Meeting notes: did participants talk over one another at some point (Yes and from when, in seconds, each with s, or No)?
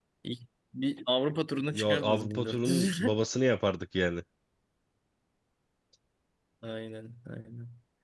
Yes, from 1.7 s